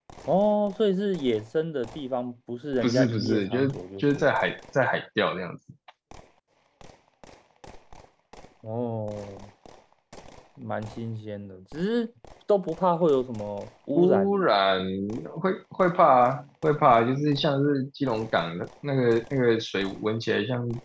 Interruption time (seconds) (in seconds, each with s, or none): 2.8 s